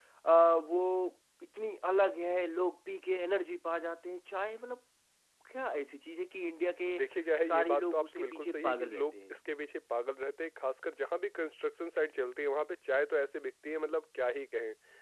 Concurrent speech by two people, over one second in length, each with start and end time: 7.5-9.4

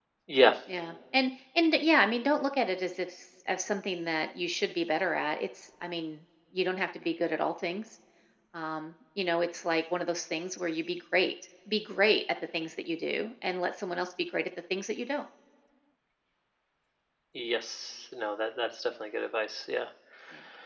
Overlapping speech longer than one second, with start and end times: none

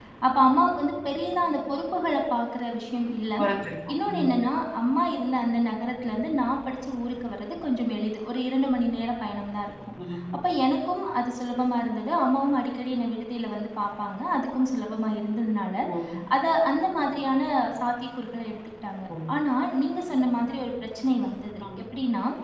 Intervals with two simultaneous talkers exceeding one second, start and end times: none

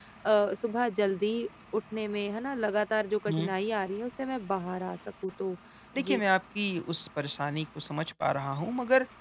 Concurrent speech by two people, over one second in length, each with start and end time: none

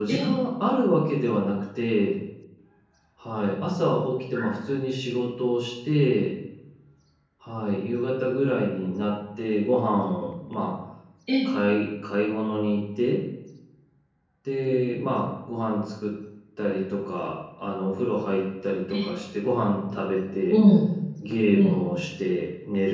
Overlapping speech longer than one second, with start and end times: none

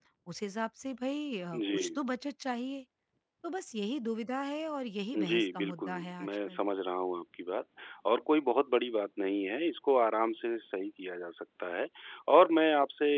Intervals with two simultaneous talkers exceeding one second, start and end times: 5.1-6.6

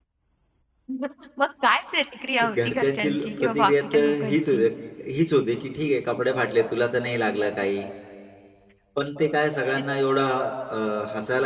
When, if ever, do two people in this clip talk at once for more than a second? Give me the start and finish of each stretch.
2.5-4.7

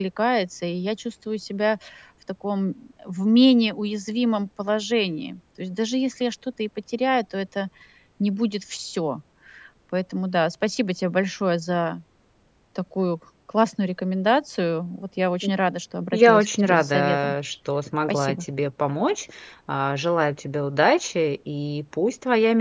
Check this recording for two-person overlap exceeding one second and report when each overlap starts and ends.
16.1-17.3

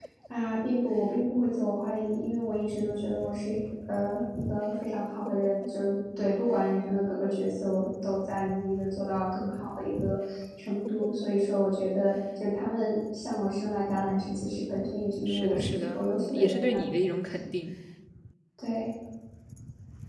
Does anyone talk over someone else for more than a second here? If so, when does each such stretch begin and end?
15.3-16.8

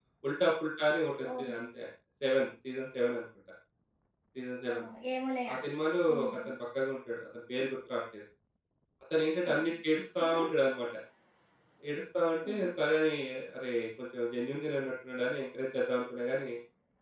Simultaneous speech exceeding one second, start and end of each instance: none

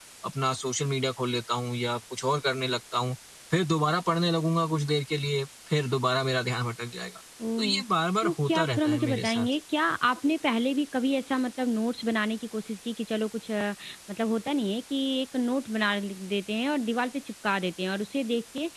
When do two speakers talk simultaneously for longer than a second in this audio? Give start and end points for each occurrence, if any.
8.2-9.5

